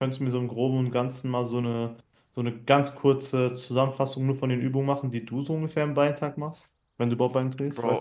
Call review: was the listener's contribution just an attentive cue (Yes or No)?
No